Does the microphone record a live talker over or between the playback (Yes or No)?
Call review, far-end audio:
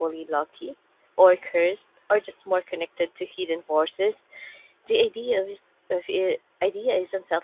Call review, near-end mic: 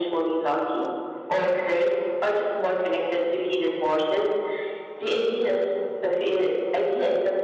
No